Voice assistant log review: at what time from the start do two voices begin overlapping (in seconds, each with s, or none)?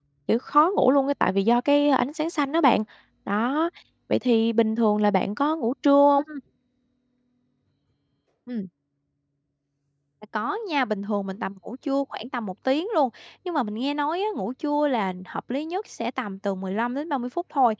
none